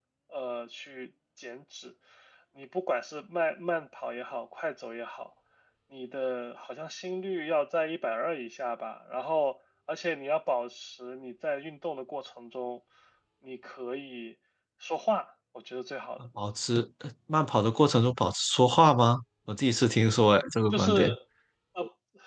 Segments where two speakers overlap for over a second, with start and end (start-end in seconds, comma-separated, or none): none